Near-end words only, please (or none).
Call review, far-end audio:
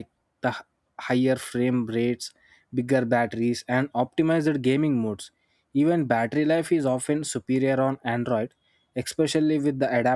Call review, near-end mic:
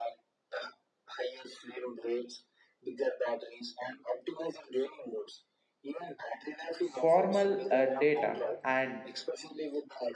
formal uh, data and